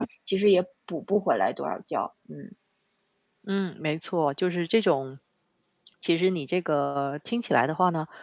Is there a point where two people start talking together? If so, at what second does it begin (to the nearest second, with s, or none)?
none